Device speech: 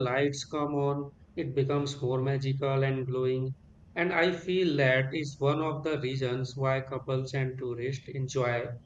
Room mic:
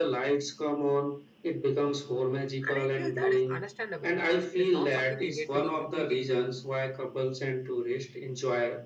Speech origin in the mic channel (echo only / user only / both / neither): both